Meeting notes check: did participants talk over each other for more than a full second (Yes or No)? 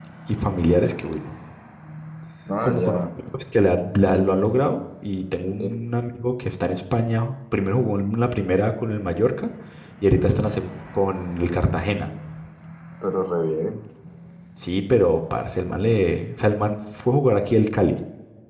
No